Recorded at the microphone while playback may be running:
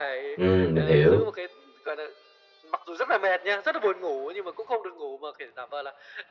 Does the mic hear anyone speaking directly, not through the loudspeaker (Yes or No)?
Yes